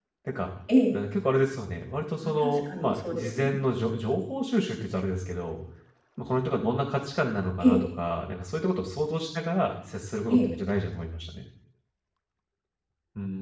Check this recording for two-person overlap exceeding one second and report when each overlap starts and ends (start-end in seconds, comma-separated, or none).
2.2-3.6